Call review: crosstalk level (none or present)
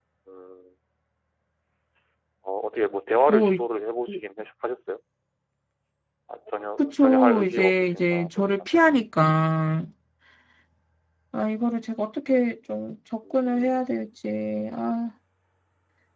present